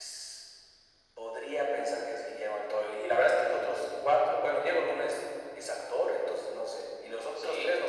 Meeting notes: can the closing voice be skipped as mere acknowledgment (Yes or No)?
No